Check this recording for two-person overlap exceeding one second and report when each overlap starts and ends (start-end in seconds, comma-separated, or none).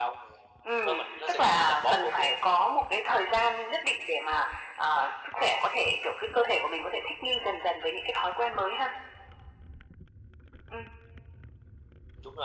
0.8-2.3